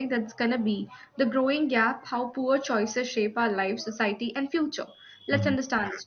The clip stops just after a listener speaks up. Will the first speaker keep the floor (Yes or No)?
Yes